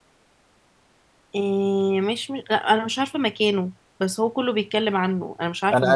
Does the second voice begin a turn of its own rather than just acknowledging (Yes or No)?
Yes